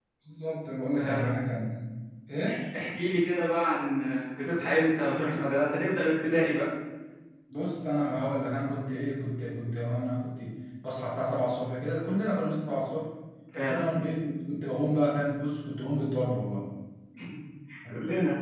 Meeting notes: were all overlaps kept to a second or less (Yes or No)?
Yes